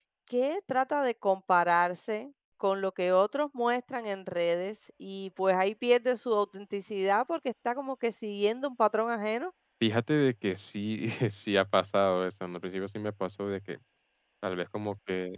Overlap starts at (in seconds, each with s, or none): none